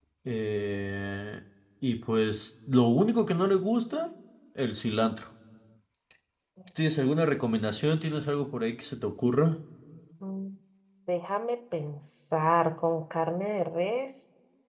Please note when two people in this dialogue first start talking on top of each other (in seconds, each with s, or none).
none